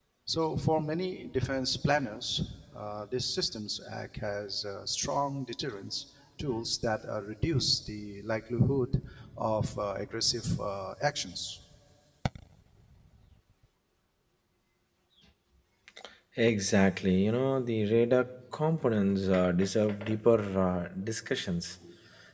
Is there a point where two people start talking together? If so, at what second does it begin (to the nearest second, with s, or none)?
none